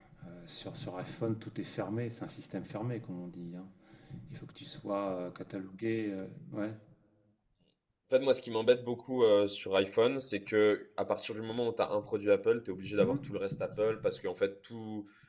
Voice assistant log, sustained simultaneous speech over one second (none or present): none